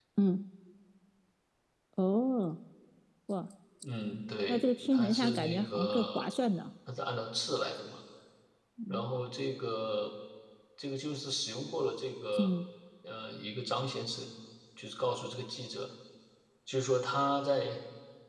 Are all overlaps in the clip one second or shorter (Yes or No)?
No